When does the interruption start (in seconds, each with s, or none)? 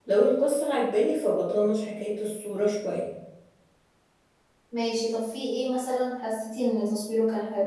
none